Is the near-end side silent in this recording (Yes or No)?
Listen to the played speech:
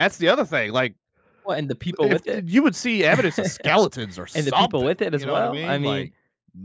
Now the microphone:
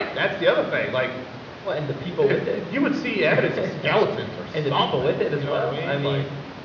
Yes